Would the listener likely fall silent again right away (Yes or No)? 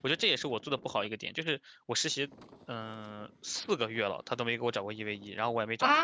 No